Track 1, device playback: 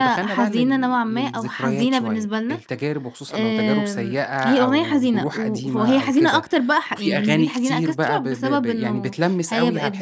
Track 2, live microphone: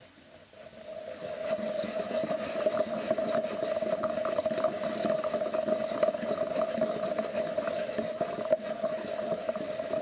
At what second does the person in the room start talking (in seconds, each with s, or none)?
none